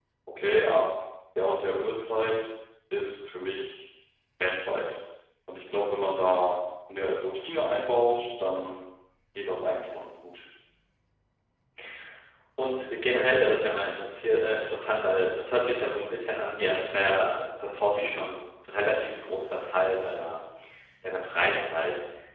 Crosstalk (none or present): none